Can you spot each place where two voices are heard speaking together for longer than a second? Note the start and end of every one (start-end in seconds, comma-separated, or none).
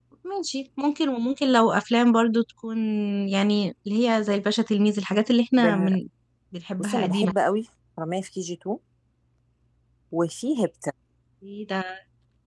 none